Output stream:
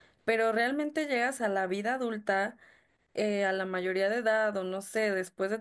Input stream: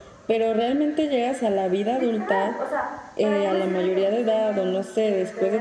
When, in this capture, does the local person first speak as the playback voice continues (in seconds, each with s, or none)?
1.9 s